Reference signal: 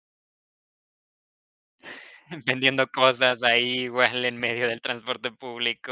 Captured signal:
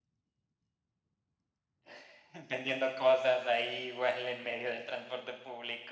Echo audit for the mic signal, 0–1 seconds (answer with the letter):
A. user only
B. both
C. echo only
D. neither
D